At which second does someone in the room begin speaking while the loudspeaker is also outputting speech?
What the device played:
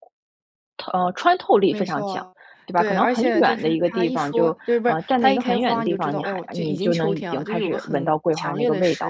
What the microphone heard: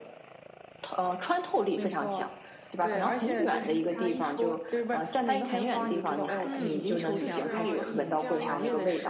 6.4 s

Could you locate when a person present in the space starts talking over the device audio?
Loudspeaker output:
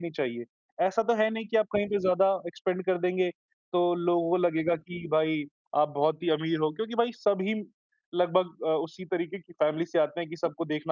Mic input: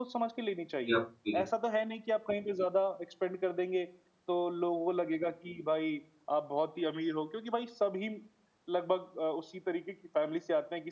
0.9 s

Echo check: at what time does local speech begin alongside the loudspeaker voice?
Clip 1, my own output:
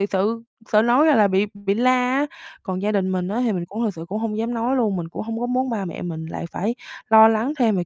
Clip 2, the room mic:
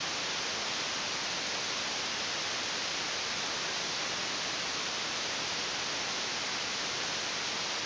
none

